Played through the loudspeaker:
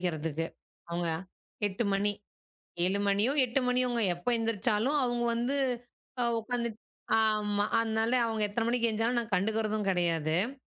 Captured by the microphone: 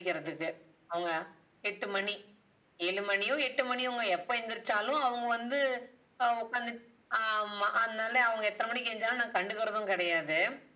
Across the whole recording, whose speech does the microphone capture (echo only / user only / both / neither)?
echo only